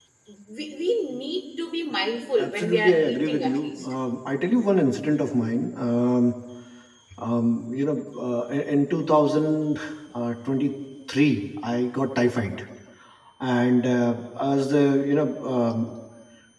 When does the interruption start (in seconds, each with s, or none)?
2.4 s